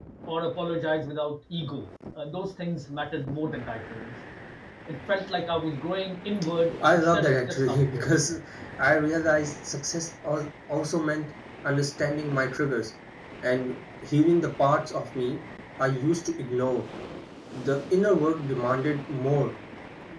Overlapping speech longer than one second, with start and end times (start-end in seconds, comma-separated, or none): 6.9-8.2